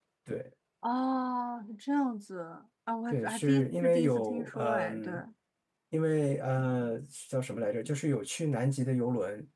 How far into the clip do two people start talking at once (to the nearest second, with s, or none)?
3 s